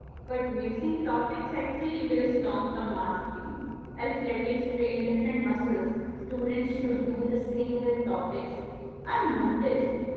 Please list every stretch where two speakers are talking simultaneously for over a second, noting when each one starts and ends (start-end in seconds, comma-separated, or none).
none